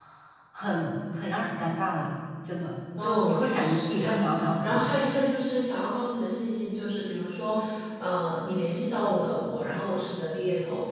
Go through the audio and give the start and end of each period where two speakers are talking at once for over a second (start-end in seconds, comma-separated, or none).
3.0-4.9